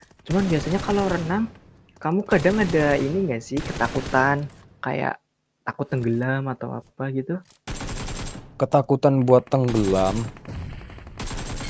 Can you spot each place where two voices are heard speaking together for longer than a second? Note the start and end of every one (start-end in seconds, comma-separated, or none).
none